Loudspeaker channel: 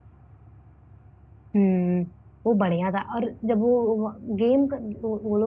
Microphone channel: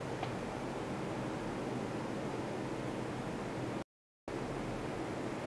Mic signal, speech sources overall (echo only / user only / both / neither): neither